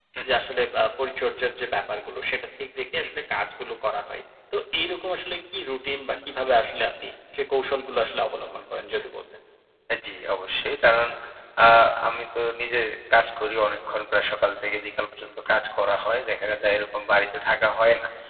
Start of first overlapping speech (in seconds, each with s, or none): none